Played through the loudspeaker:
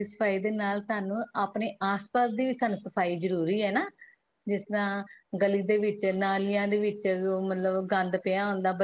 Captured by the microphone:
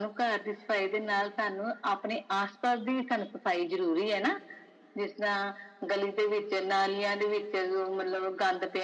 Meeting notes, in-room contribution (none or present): none